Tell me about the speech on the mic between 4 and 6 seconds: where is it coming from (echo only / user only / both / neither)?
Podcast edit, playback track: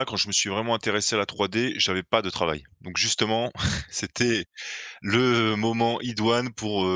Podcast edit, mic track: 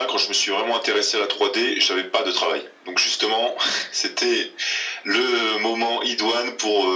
echo only